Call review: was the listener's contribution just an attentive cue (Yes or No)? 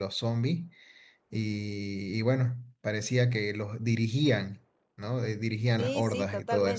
No